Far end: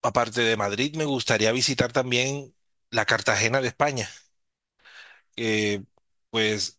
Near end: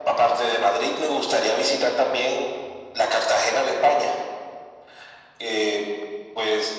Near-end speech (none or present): none